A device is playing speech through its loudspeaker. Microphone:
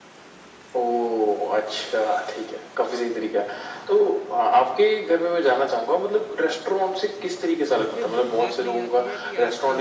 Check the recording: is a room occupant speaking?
Yes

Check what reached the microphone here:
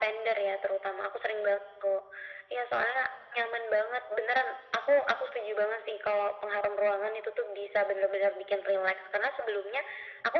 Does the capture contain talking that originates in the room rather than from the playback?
No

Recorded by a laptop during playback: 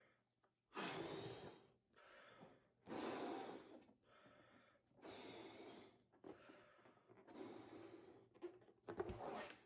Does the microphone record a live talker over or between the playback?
No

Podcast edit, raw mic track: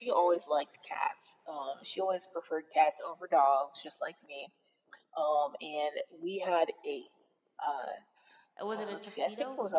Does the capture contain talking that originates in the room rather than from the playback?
Yes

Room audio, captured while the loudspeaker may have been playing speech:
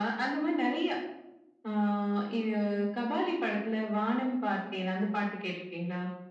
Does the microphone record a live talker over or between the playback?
No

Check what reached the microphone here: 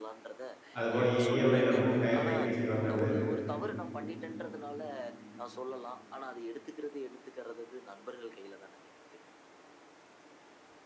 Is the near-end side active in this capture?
Yes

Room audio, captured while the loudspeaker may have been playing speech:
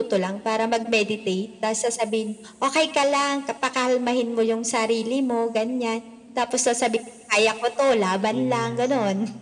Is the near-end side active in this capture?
Yes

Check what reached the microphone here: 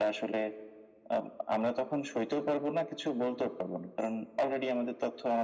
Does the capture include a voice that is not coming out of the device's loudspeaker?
No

